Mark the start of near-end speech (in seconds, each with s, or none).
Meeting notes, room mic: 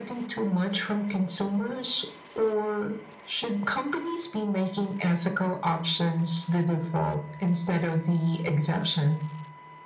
none